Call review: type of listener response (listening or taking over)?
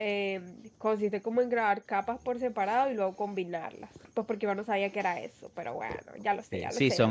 taking over